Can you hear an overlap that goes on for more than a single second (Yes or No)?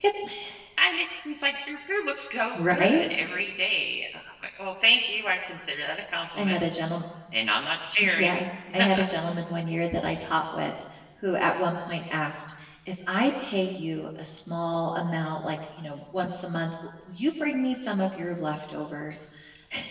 No